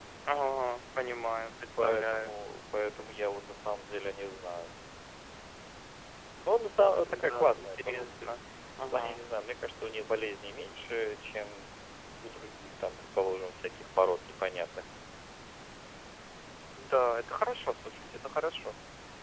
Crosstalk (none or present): present